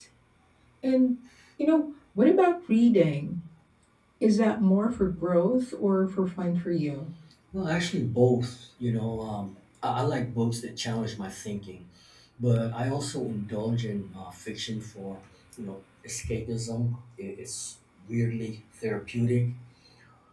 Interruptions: none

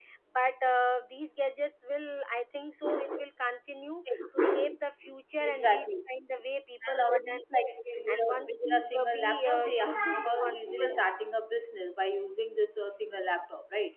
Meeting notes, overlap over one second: present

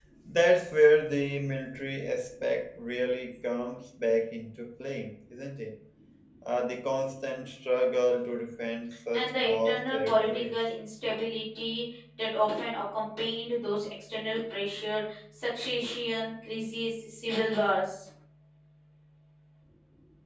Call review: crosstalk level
present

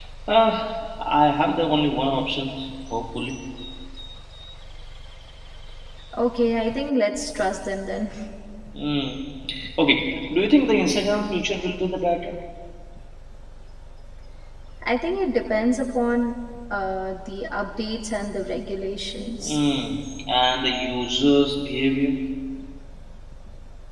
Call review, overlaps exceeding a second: none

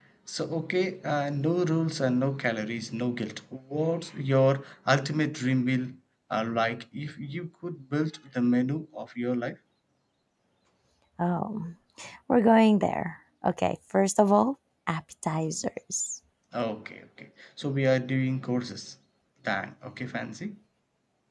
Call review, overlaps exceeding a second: none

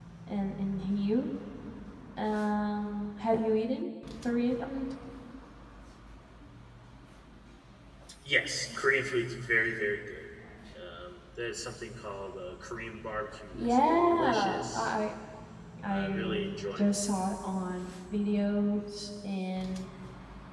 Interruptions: present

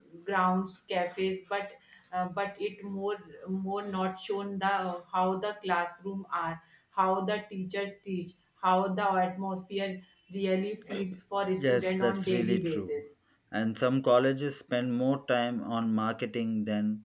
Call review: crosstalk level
present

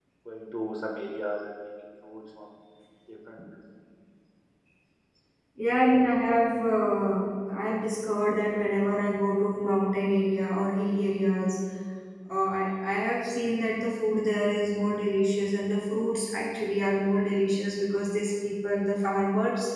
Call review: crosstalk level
none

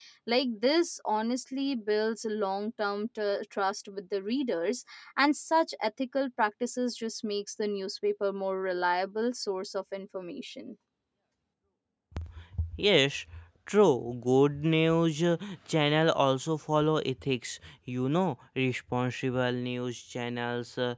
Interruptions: none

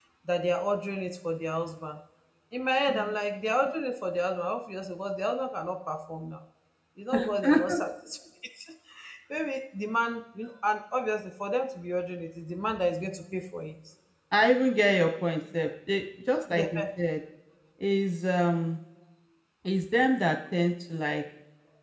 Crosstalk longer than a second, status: none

